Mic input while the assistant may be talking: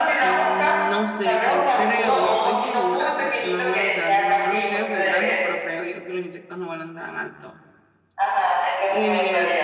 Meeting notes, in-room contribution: present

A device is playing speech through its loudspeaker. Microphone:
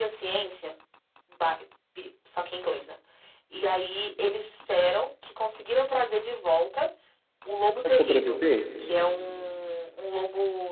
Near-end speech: present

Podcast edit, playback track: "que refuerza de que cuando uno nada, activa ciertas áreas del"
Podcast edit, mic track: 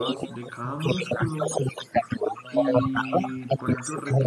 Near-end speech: present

